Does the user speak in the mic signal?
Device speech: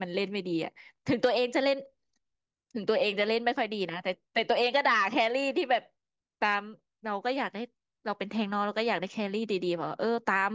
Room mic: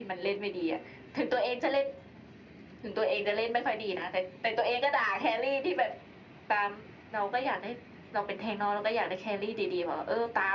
No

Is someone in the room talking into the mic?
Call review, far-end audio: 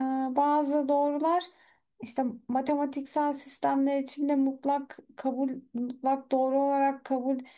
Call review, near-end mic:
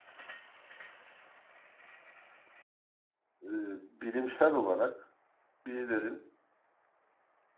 Yes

